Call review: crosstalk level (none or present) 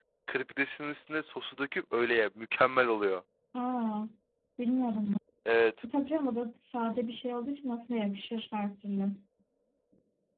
none